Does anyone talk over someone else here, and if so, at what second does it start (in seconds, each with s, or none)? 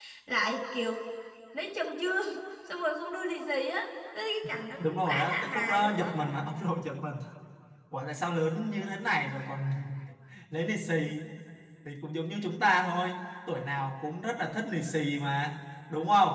4.8 s